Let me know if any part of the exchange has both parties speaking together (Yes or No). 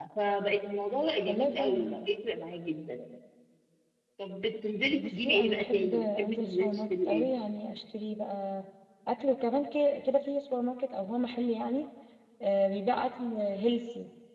Yes